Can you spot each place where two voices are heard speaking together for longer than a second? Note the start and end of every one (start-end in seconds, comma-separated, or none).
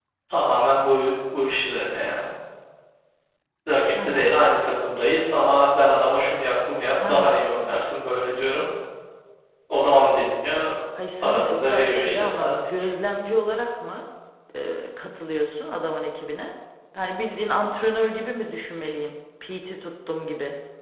11.2-12.8